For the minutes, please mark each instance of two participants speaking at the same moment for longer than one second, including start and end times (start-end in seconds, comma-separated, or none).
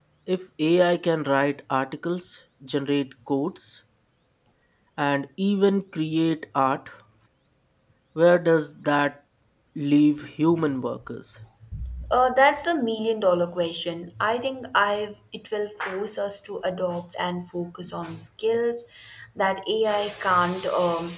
none